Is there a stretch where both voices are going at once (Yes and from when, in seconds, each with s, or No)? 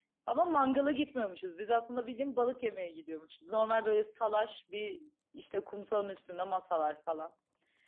No